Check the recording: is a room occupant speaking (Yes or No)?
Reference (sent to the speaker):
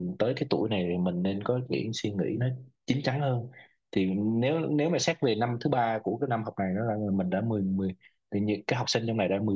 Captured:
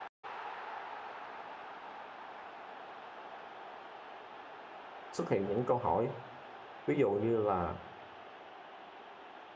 Yes